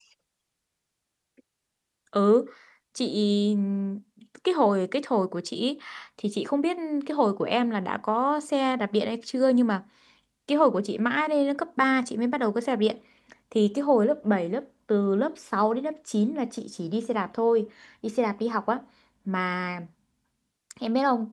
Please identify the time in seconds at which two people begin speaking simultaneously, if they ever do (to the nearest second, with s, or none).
none